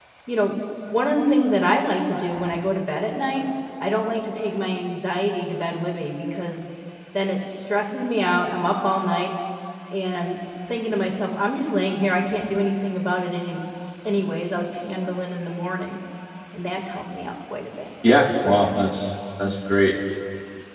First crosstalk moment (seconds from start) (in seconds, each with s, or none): none